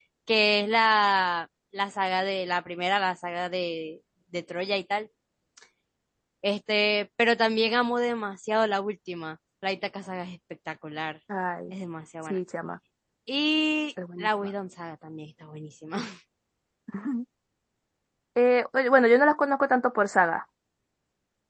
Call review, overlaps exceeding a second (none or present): none